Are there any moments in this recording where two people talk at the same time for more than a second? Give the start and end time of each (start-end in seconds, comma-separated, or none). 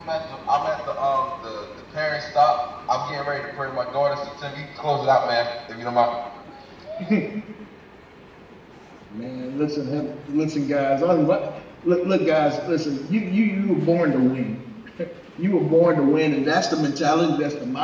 none